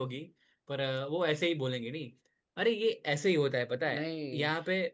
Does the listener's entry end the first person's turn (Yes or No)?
No